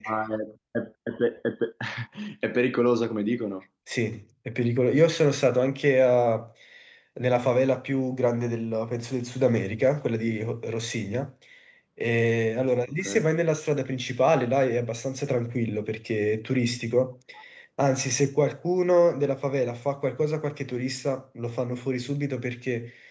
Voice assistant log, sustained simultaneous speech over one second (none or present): none